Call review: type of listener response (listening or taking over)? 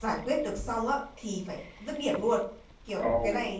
listening